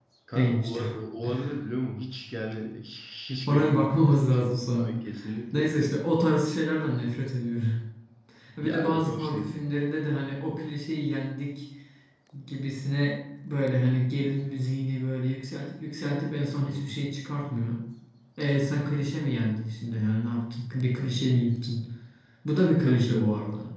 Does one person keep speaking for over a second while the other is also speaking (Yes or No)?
Yes